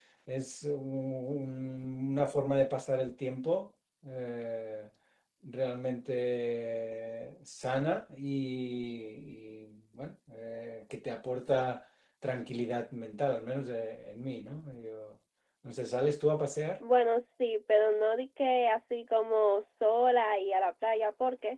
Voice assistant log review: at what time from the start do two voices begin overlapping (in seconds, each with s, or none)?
none